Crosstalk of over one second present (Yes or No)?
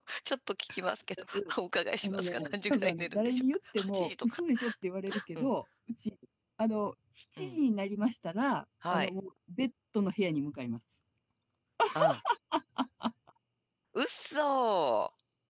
Yes